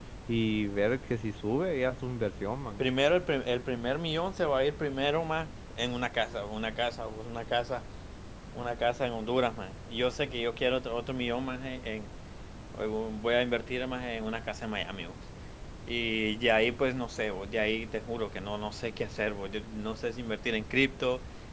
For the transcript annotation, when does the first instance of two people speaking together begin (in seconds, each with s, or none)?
none